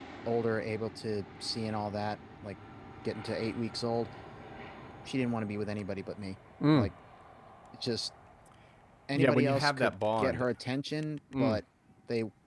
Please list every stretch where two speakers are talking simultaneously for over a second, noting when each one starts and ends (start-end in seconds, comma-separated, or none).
9.2-10.4